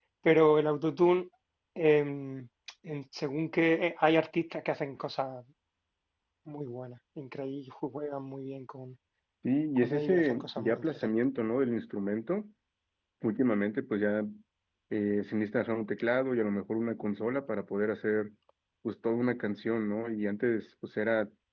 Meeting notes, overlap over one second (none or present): present